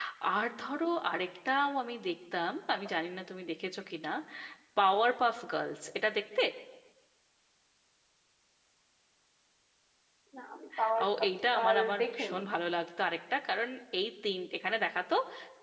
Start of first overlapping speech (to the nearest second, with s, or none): 11 s